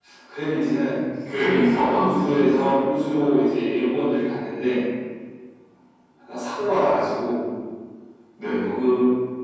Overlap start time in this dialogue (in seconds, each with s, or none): 1.5 s